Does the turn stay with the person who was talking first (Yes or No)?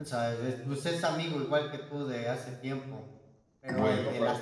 Yes